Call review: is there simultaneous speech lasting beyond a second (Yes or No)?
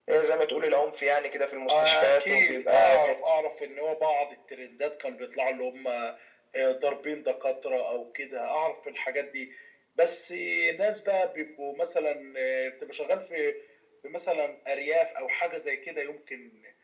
Yes